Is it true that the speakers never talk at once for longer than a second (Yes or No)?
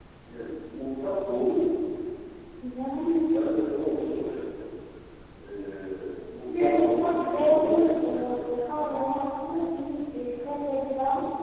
No